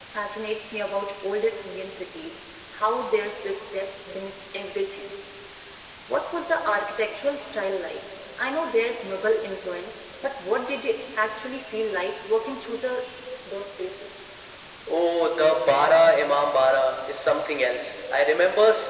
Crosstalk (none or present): none